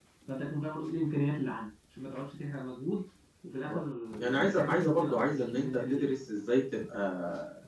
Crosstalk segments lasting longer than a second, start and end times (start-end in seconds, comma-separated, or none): 4.2-6.1